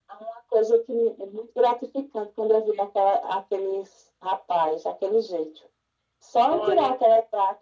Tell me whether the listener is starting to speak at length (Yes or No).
No